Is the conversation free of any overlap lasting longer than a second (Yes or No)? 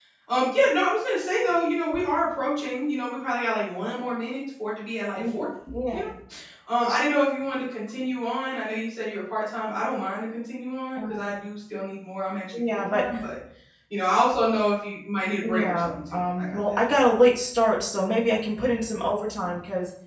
No